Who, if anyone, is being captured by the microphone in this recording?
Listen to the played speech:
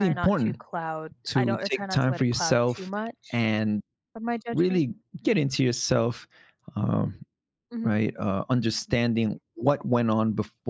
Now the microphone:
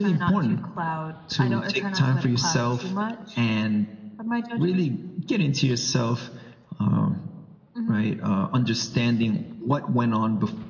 echo only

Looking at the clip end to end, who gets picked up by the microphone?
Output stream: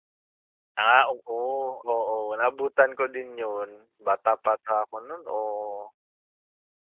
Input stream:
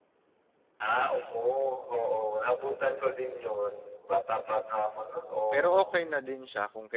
both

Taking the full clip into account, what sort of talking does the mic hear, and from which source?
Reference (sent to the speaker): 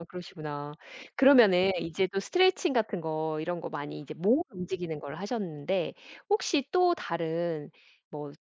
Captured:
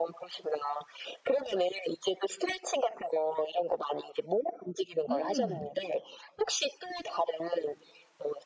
both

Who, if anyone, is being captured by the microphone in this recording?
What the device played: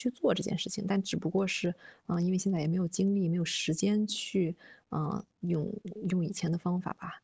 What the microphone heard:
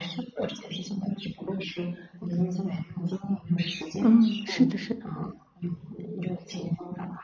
both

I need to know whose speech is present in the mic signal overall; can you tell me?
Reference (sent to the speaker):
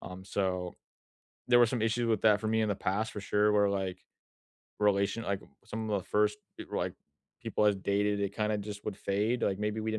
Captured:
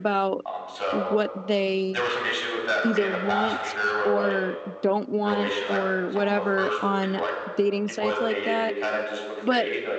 both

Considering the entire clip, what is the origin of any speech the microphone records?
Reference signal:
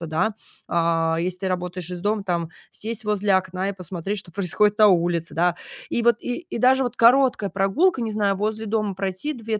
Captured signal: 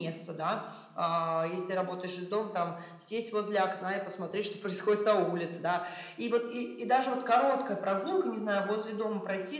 echo only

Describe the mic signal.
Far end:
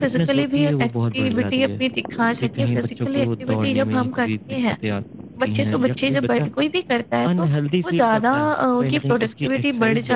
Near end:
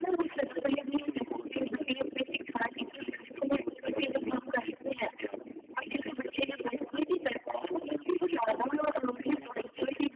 echo only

